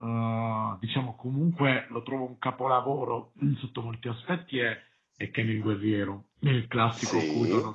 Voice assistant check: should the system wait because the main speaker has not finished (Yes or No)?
No